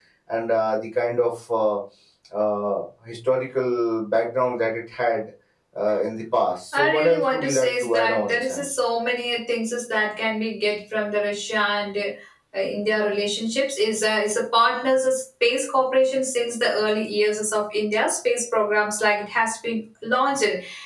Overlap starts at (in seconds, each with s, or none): 6.7 s